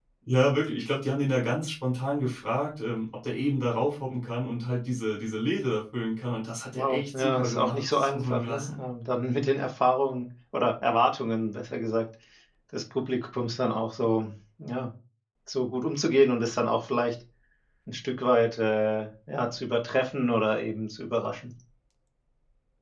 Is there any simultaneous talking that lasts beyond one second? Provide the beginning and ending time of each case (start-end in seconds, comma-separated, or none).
6.7-8.8